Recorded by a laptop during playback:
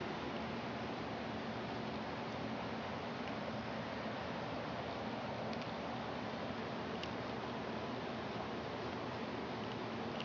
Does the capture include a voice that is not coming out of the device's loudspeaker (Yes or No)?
No